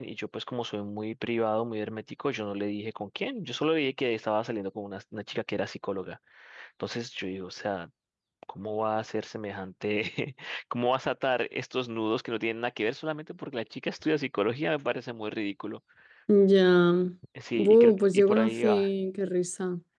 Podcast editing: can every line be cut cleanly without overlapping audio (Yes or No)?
No